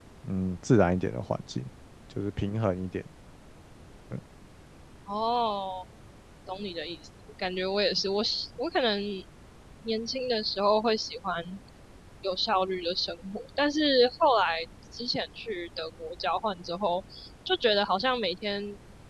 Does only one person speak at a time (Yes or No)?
Yes